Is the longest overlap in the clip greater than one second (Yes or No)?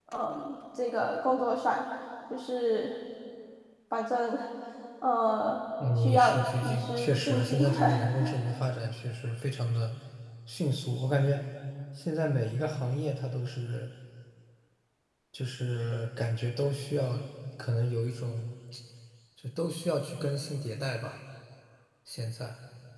Yes